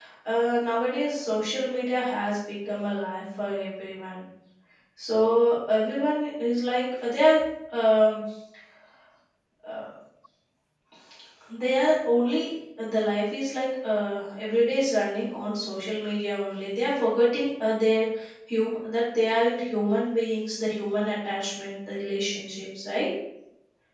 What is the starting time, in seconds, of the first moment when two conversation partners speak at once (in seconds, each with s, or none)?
none